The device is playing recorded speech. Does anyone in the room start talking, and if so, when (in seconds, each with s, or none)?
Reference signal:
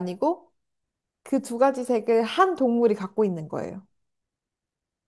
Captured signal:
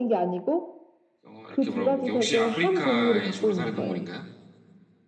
1.2 s